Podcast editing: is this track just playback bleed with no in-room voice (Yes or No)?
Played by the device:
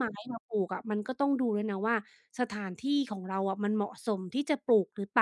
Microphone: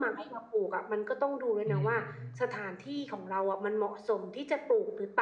No